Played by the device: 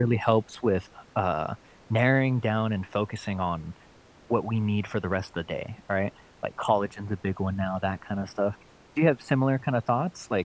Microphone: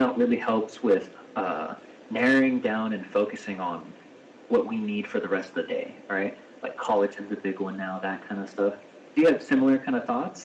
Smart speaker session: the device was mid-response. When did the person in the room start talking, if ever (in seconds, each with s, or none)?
none